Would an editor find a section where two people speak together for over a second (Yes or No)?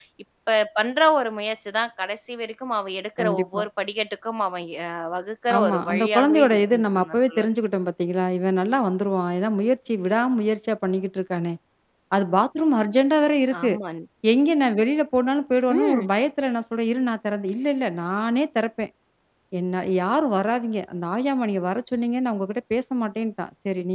Yes